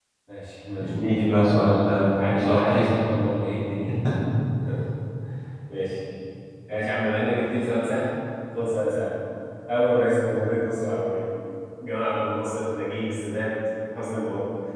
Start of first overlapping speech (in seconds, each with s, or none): 0.8 s